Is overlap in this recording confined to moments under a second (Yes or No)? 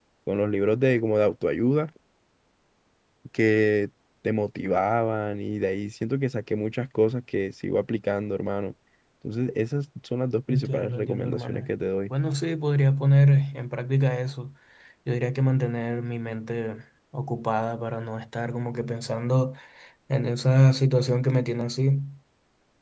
No